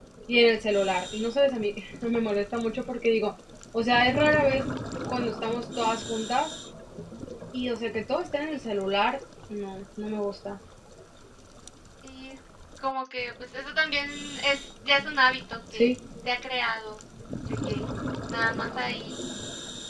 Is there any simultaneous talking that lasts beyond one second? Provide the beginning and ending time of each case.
none

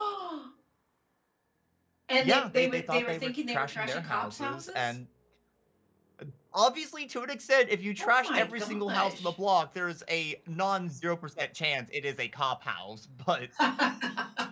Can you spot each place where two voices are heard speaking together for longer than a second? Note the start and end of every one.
2.2-4.9, 8.0-9.3

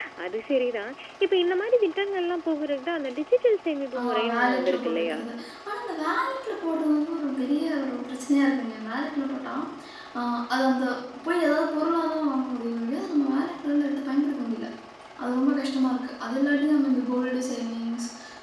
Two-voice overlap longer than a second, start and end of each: 4.0-5.2

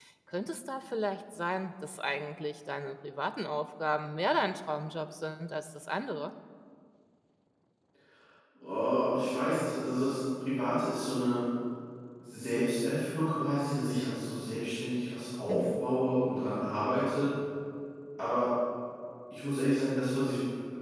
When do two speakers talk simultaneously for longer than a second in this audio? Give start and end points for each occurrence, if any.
none

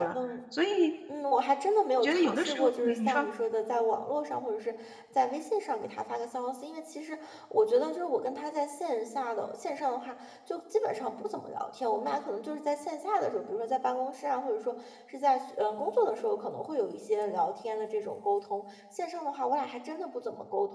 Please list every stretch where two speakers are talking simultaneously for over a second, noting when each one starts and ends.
2.0-3.3

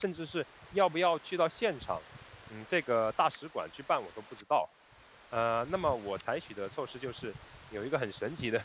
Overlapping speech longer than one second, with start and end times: none

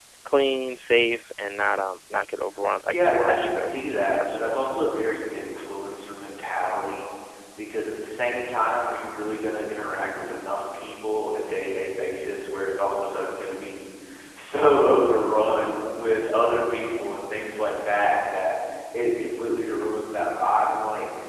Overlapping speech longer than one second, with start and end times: 2.9-4.7

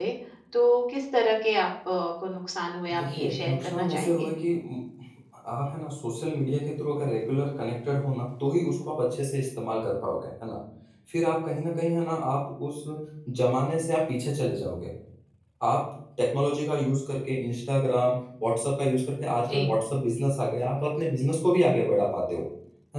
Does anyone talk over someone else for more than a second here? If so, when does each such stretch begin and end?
3.0-4.3

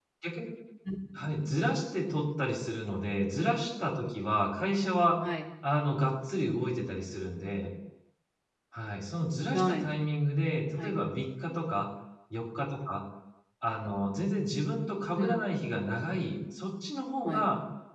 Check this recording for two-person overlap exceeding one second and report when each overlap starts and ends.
none

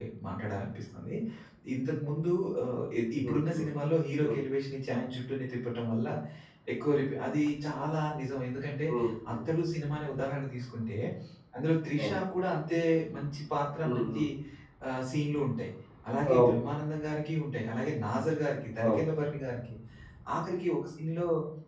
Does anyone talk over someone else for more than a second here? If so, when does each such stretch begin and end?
none

